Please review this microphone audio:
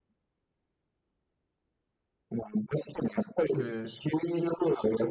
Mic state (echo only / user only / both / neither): both